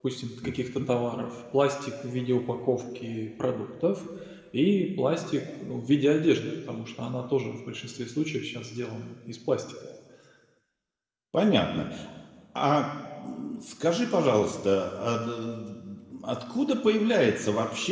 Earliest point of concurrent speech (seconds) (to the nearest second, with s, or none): none